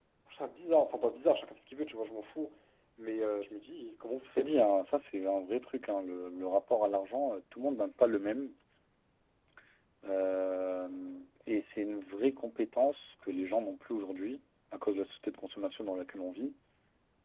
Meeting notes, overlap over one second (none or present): none